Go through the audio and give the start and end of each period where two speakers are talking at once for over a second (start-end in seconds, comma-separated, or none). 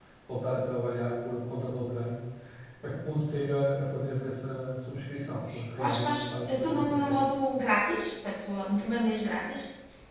5.8-7.2